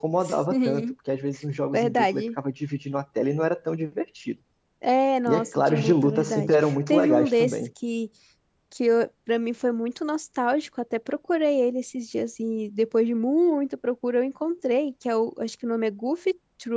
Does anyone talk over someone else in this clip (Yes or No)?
Yes